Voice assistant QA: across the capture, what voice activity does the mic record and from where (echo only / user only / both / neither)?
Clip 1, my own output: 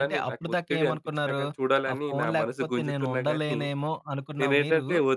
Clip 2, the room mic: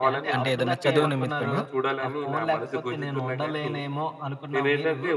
both